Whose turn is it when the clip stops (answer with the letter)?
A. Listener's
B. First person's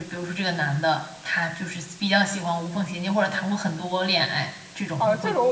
A